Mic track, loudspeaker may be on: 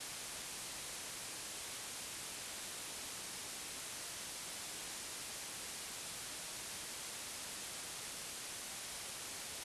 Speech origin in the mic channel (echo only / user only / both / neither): neither